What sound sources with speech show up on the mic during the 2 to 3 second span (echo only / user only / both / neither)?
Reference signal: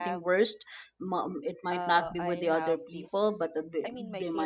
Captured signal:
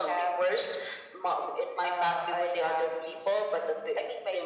echo only